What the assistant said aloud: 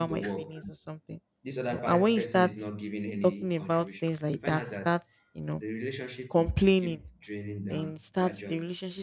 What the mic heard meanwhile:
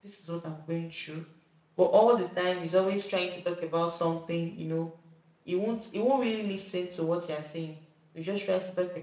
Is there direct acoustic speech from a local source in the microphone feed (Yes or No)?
Yes